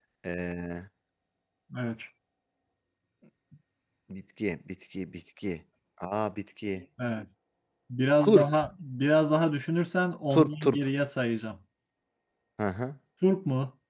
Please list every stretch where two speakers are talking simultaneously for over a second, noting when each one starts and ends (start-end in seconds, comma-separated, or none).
none